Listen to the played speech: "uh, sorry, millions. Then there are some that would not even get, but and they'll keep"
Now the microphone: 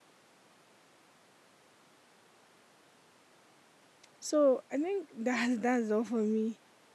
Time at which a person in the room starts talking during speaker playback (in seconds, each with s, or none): 4.2 s